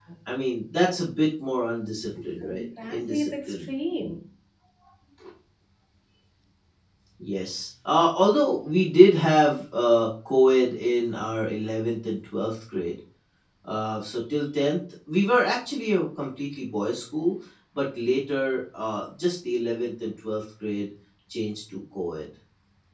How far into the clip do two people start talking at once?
2.4 s

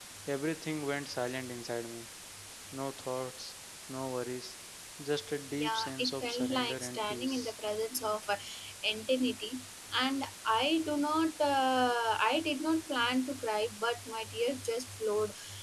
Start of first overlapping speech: 5.6 s

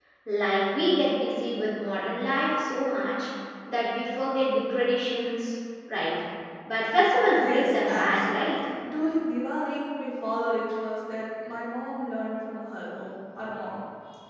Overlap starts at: 7.4 s

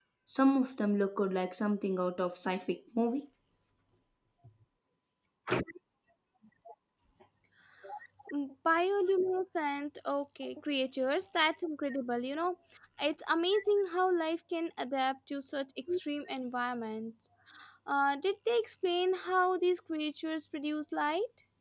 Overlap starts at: none

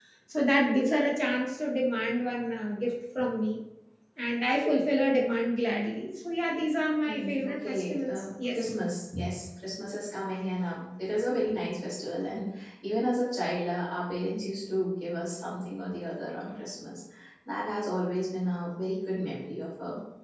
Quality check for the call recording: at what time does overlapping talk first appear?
7.1 s

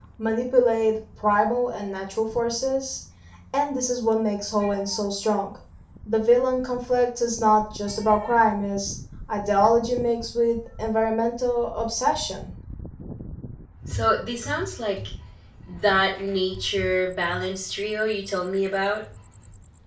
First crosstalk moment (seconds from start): none

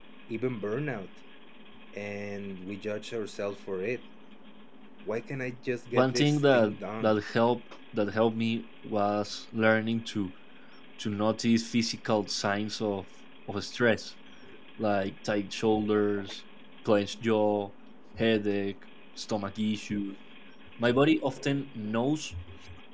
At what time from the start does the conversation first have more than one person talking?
5.9 s

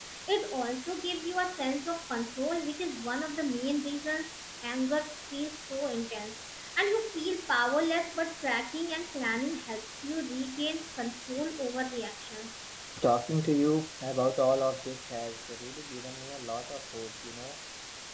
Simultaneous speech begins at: none

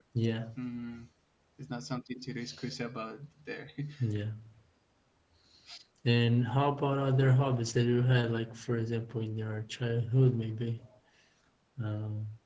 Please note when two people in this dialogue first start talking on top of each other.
none

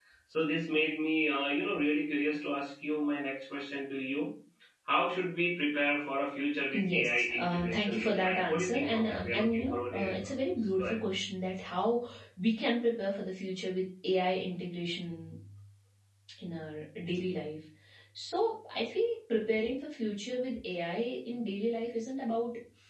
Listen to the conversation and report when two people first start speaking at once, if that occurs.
6.7 s

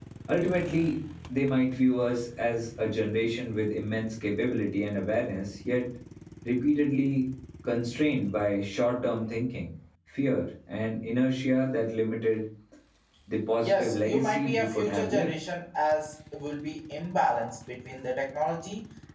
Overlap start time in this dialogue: 13.6 s

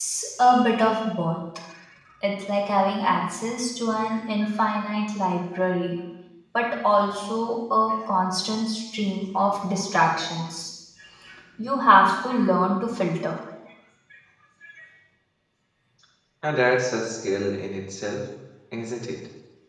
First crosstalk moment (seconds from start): none

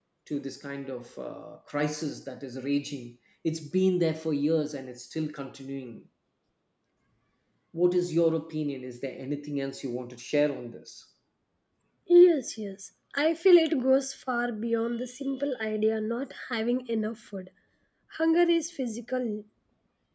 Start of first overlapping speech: none

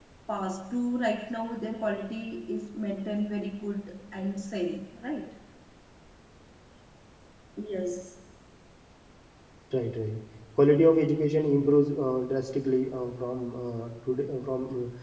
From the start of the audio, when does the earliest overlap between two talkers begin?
none

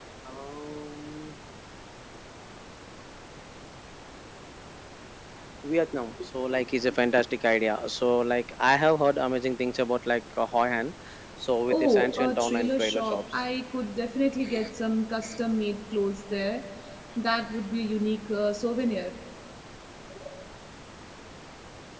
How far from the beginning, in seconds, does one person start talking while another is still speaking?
11.7 s

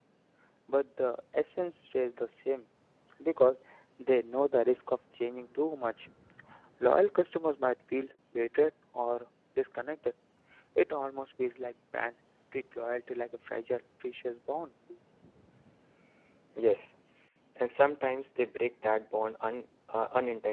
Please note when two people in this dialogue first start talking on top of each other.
none

